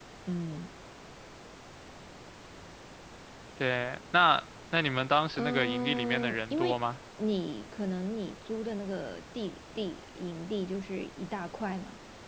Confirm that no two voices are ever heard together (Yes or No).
No